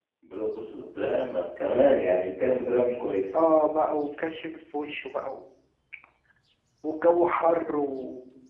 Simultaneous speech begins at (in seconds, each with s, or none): none